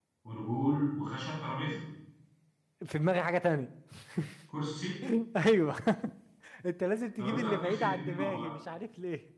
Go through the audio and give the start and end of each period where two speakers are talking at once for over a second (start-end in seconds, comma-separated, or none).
7.2-8.5